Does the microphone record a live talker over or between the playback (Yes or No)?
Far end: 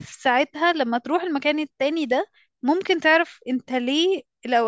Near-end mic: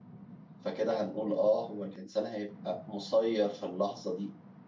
Yes